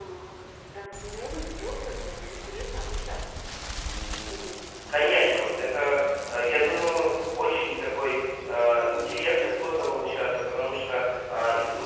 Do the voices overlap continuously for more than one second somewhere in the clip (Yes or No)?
No